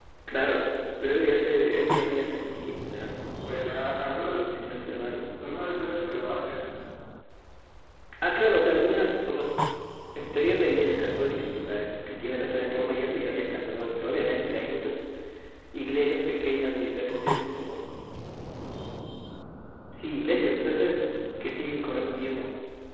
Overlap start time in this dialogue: none

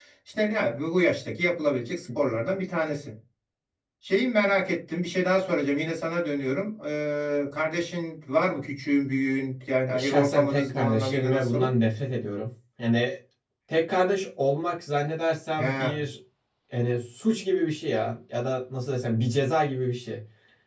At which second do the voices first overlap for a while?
10.0 s

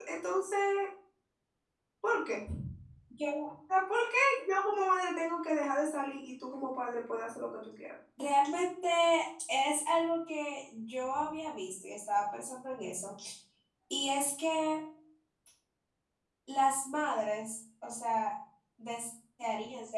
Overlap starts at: none

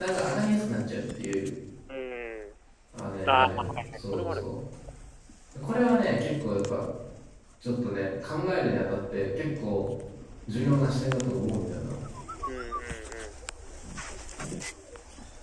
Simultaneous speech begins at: 3.3 s

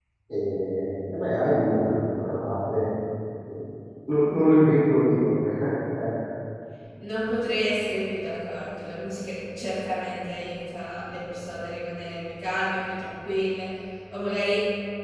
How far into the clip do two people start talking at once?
none

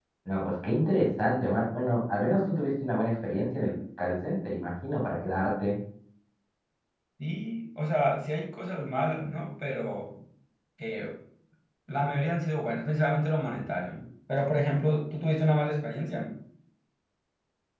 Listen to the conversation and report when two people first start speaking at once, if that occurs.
none

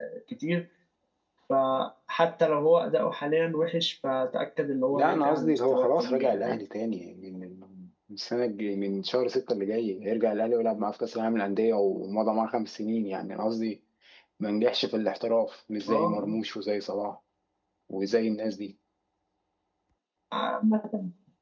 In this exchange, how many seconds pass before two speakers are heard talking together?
4.9 s

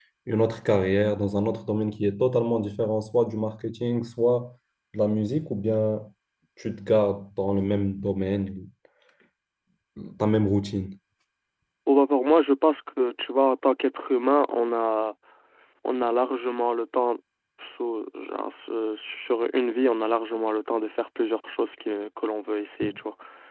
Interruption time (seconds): none

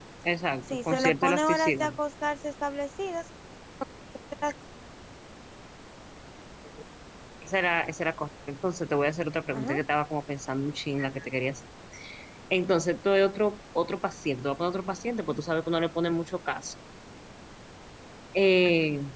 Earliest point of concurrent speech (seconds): 0.7 s

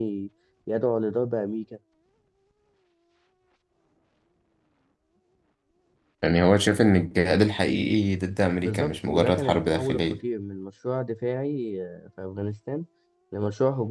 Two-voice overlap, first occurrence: 8.6 s

